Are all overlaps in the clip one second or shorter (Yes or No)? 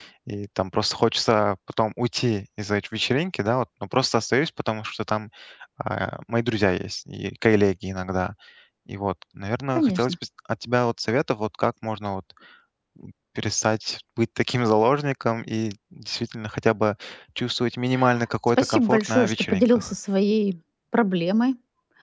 No